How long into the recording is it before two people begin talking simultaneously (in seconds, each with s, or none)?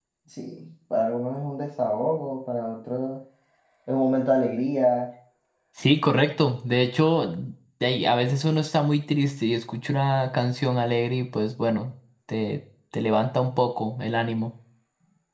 none